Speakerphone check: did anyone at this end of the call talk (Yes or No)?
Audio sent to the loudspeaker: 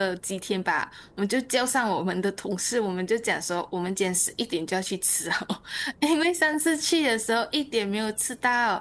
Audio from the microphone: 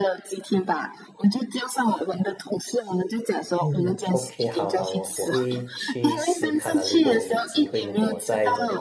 Yes